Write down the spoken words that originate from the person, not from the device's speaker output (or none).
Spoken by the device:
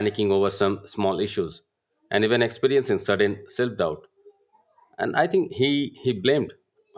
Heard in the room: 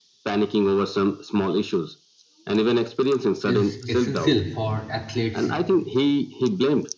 is essential for athletes,